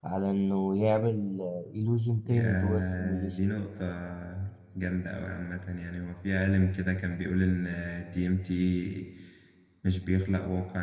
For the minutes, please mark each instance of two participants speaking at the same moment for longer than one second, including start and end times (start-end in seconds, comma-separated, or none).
2.2-3.5